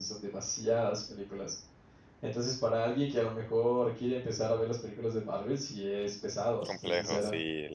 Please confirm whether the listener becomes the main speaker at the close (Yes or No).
Yes